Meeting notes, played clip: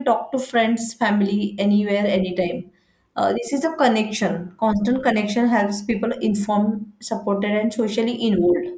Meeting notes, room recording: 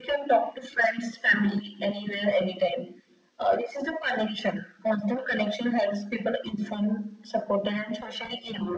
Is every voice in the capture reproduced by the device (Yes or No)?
Yes